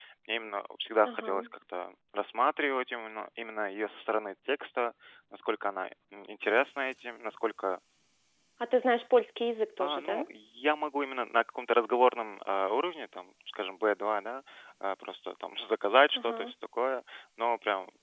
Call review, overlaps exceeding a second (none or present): none